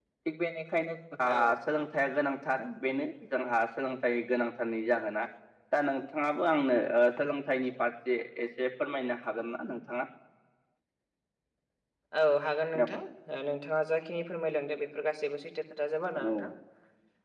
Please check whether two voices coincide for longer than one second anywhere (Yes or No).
No